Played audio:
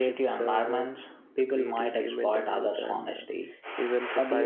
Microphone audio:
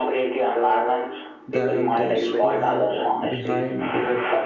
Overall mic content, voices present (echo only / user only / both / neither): both